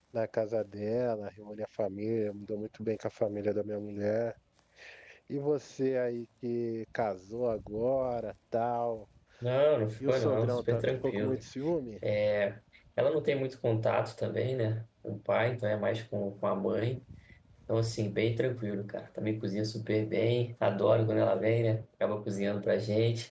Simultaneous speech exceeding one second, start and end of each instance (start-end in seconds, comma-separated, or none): 10.0-11.4